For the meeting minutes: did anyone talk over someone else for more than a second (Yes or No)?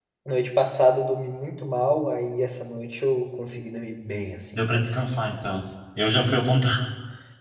No